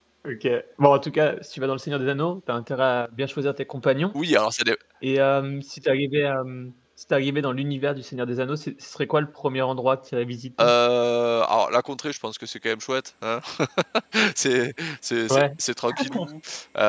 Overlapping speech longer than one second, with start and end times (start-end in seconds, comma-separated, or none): none